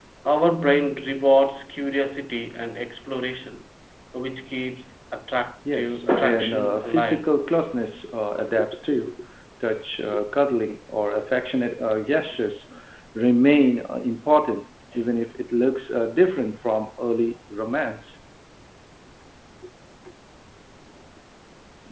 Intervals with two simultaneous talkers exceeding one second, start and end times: 5.7-7.3

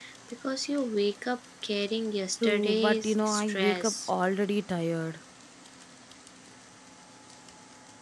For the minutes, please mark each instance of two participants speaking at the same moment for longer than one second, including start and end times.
2.4-4.1

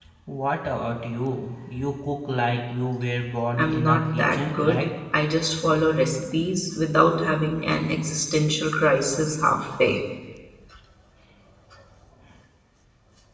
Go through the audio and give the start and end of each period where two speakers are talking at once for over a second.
3.6-4.8

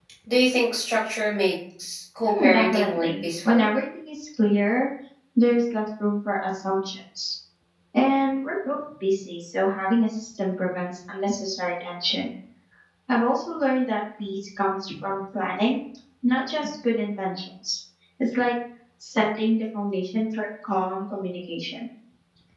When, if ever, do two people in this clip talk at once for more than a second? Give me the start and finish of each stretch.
2.2-3.7

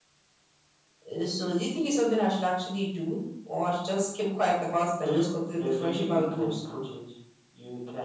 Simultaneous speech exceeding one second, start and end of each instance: 5.0-6.5

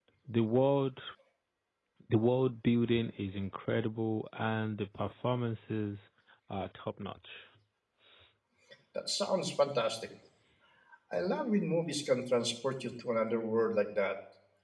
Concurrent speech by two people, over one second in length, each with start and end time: none

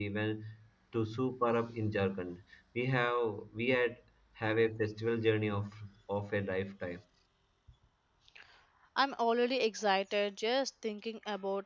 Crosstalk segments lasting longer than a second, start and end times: none

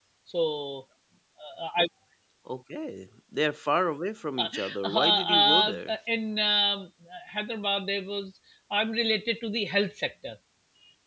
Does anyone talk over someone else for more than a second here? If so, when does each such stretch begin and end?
4.4-5.9

